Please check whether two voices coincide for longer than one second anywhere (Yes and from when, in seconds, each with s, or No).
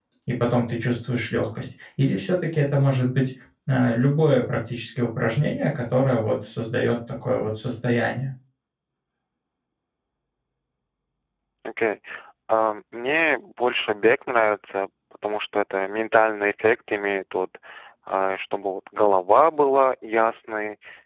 No